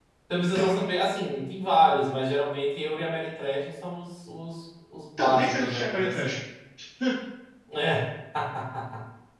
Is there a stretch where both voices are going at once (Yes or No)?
Yes